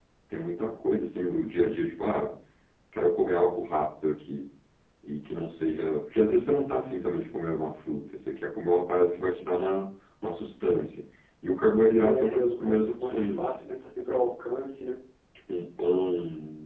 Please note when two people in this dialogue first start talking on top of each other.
12.0 s

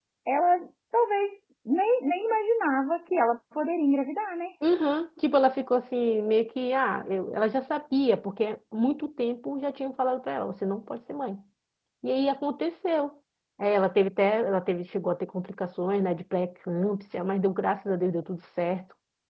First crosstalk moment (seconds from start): none

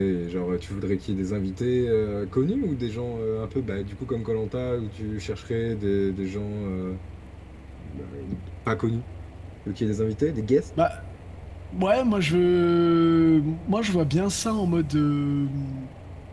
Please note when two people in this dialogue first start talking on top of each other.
none

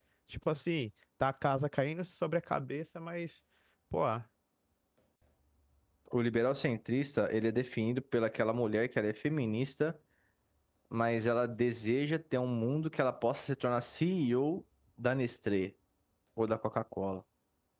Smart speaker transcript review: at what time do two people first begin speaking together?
none

